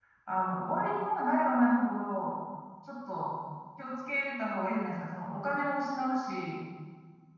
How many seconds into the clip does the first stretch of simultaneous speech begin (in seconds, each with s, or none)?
none